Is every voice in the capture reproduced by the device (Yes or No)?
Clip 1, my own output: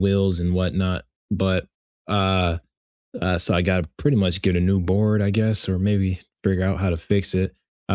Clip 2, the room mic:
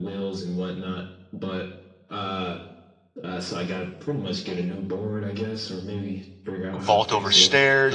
No